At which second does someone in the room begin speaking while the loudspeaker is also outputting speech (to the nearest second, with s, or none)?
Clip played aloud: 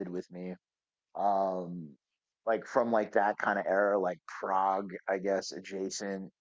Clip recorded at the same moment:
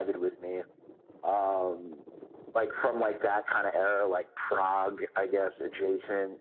none